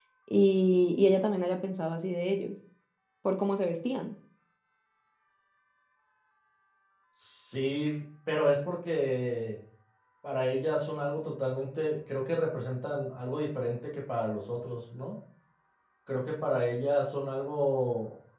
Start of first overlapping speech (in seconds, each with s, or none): none